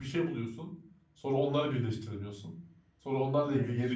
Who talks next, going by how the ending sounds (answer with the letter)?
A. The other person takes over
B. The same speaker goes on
B